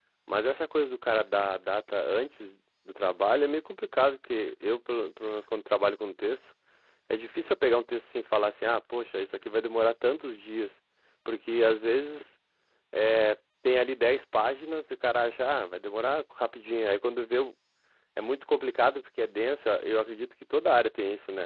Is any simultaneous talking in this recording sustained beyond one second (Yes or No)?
No